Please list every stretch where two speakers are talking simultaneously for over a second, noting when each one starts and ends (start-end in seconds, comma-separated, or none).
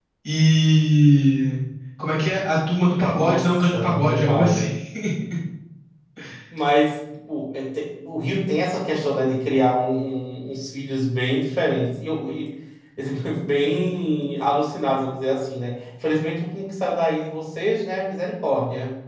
3.1-4.7